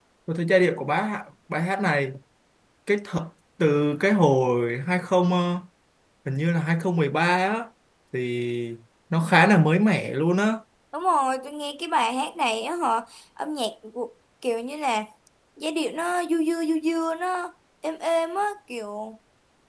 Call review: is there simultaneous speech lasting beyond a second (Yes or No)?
No